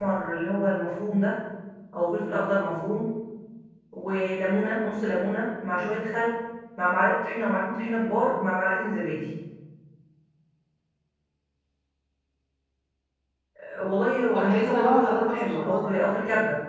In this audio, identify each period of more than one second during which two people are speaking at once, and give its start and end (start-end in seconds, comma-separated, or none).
14.3-15.8